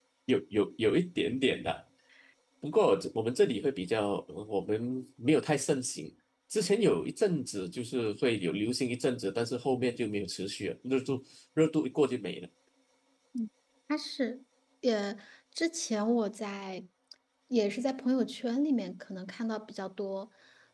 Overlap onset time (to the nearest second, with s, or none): none